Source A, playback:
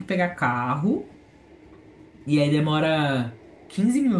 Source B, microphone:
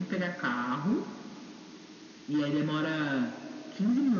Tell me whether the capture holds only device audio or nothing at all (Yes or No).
Yes